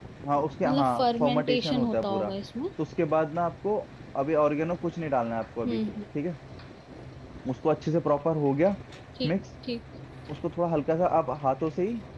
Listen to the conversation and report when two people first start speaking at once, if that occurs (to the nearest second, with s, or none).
1 s